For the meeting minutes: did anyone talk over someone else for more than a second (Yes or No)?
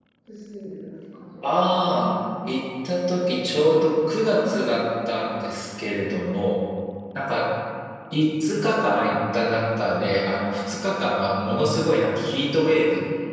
No